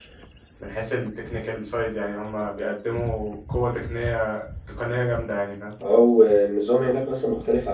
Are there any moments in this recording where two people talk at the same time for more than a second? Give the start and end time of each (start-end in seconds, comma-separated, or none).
none